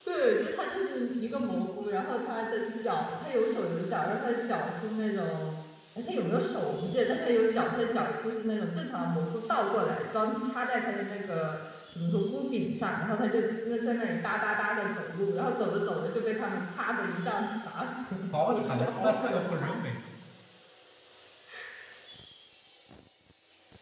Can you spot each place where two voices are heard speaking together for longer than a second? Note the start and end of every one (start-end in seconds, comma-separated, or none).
18.5-19.7